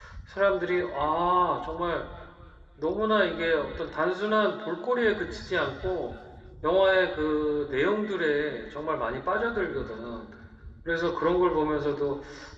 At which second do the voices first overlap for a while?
none

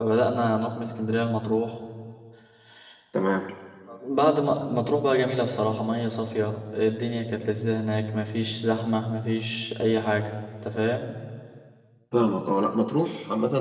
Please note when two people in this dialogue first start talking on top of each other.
none

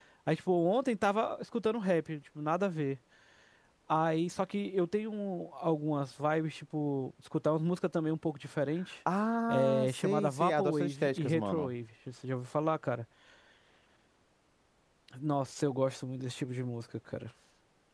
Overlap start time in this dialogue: 9 s

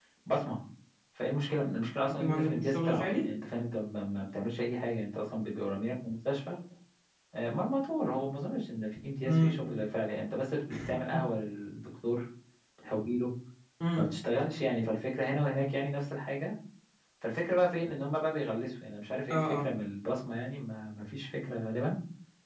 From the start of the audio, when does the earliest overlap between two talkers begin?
2 s

